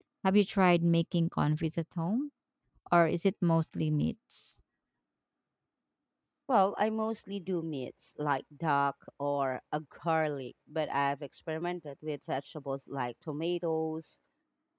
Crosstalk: none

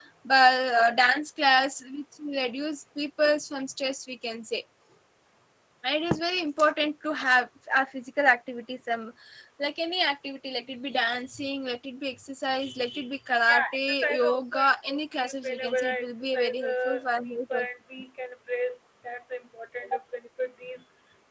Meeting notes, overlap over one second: present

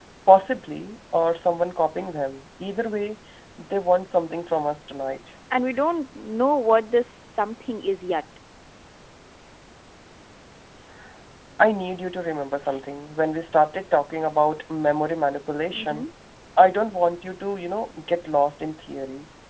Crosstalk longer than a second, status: none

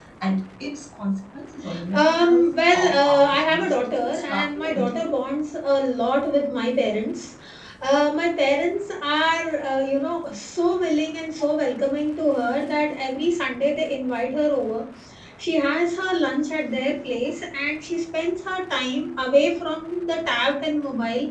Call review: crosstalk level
present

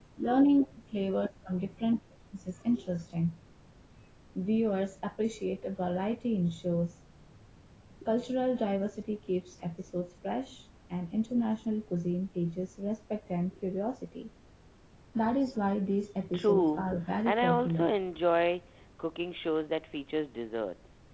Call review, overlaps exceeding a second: present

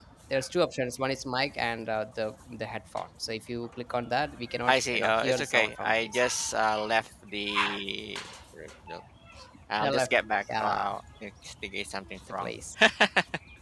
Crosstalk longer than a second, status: present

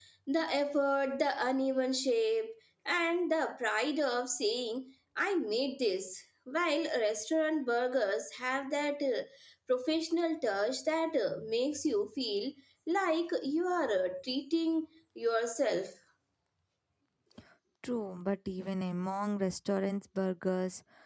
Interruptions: none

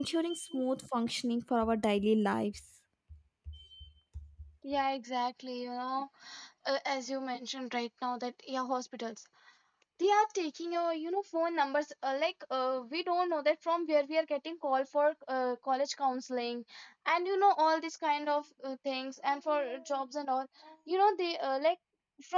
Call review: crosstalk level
none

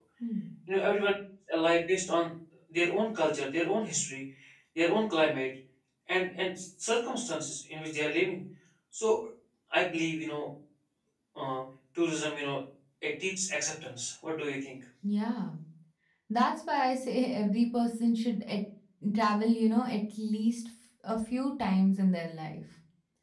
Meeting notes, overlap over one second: none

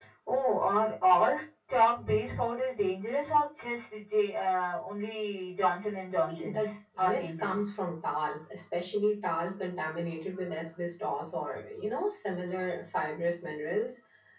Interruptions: present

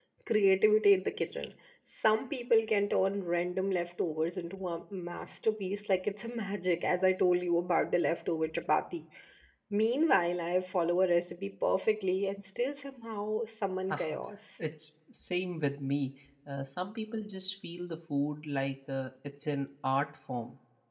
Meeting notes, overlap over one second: none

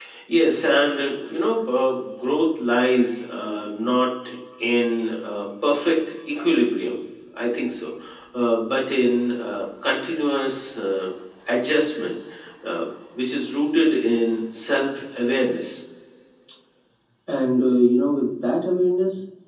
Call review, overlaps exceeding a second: none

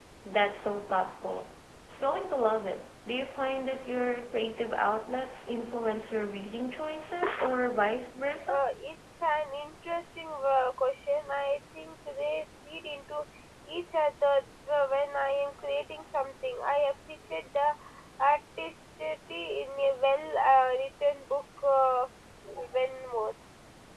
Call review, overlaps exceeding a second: none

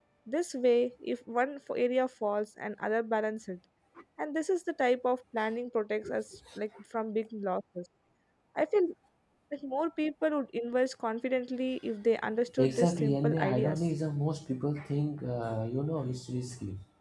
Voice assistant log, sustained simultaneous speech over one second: present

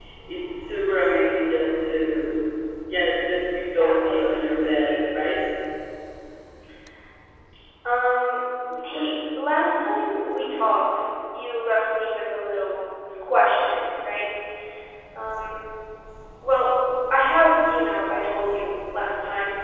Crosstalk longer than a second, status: present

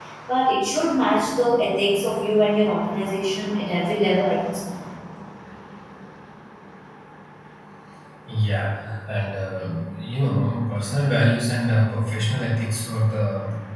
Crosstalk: none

